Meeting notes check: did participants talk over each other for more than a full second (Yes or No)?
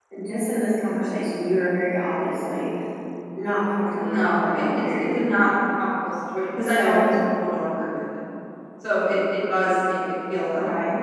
Yes